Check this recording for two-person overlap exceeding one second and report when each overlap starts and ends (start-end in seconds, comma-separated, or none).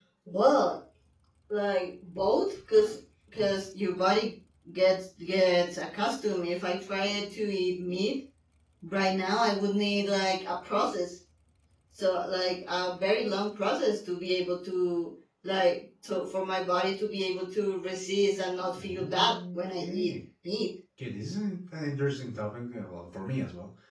18.8-20.1